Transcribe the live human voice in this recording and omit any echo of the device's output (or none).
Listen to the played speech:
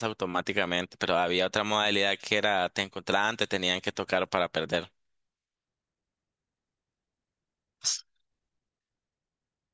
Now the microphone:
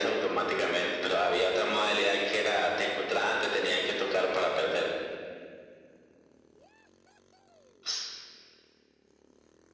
none